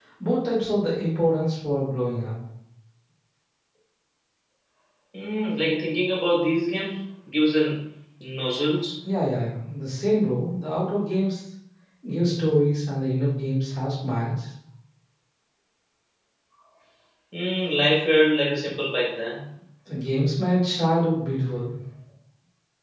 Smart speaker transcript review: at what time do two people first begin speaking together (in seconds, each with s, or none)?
none